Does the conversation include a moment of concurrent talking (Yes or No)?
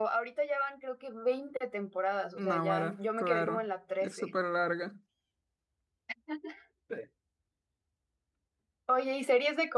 Yes